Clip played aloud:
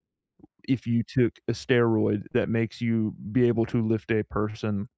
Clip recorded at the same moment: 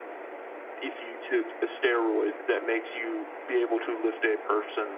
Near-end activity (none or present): none